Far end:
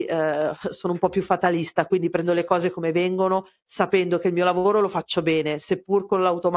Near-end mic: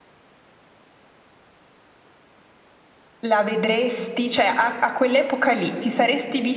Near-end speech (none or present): present